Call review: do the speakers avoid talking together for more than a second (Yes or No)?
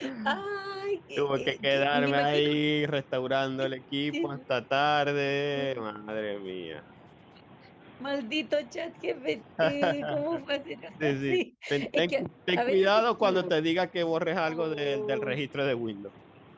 No